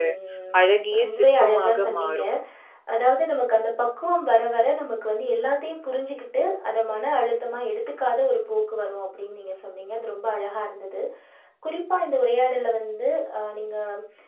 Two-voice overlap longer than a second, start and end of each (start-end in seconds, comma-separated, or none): 1.0-2.2